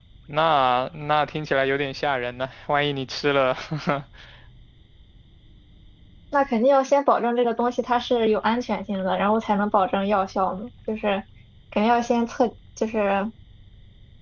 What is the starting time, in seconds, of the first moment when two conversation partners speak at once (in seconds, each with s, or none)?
none